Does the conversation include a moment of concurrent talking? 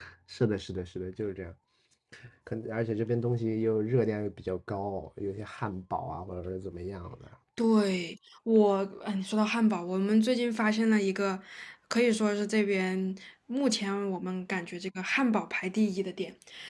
No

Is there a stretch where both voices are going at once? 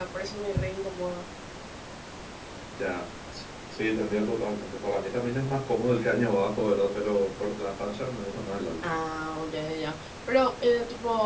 No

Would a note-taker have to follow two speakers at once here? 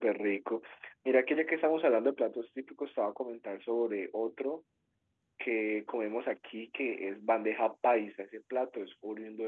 No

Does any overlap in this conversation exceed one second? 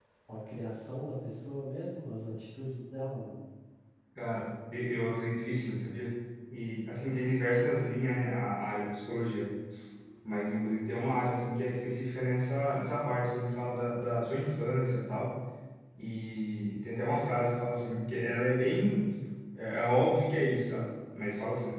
No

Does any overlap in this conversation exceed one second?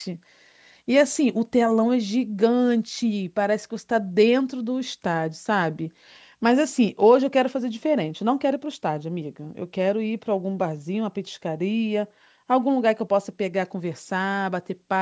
No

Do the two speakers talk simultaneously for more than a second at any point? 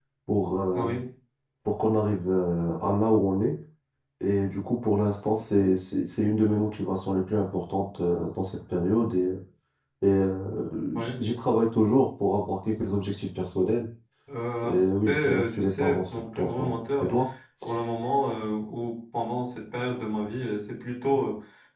Yes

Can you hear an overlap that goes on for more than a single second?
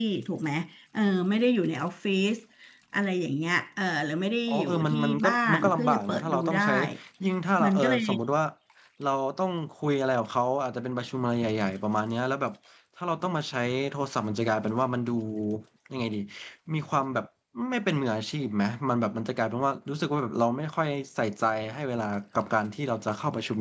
Yes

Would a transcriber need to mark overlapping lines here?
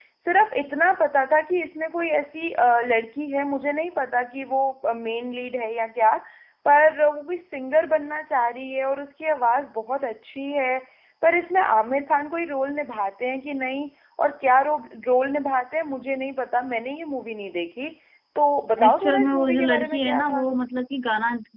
Yes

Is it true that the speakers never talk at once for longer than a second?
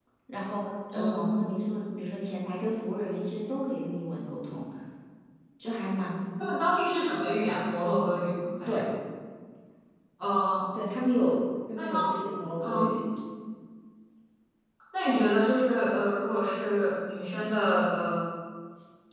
Yes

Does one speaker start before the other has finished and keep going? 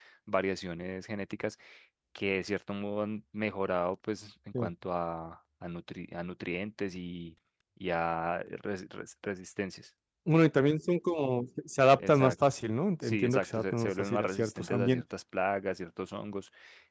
Yes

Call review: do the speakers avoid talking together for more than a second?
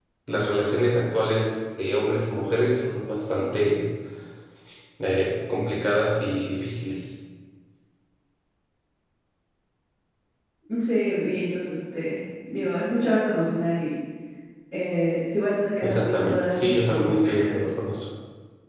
No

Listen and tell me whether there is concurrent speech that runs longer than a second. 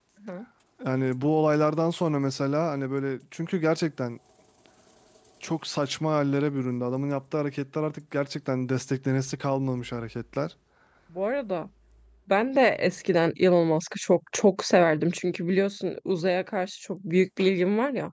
No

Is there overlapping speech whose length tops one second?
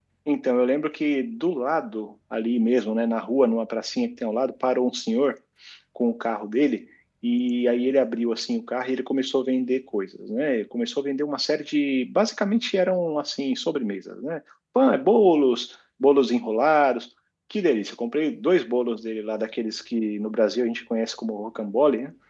No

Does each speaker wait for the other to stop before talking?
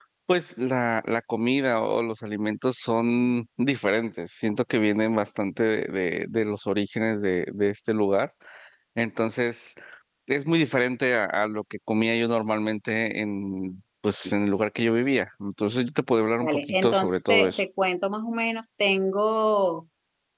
No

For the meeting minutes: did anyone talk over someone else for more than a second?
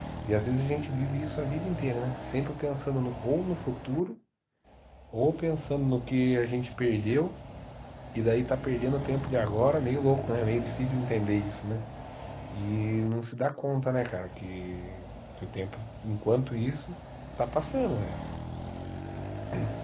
No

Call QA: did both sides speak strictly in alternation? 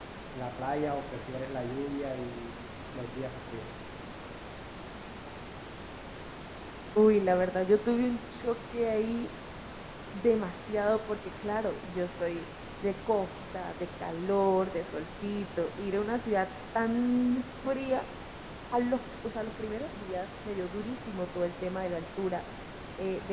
Yes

